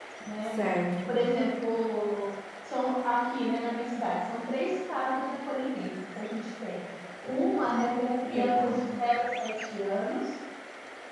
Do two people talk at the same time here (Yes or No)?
Yes